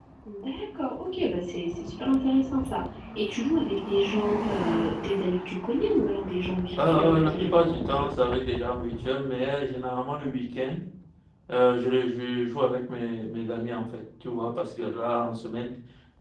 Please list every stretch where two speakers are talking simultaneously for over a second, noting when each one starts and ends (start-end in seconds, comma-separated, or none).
6.8-8.1